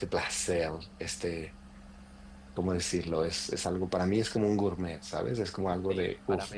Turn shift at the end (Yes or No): Yes